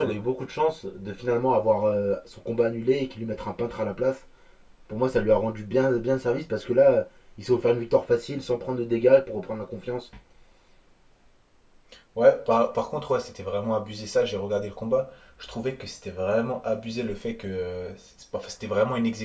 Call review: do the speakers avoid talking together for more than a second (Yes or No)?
Yes